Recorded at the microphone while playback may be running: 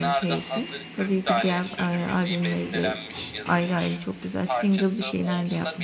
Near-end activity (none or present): present